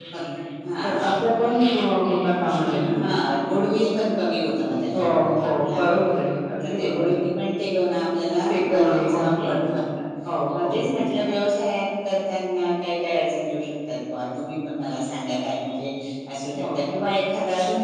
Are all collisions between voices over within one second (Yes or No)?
No